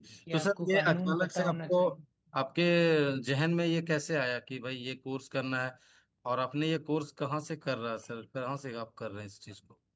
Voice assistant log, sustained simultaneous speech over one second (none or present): present